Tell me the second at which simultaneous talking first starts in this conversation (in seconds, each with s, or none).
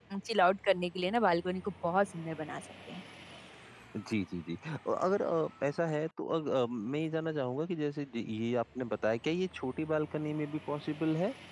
none